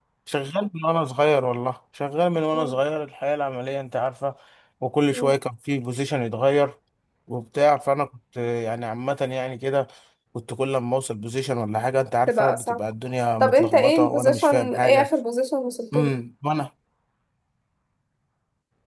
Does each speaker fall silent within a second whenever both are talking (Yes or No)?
No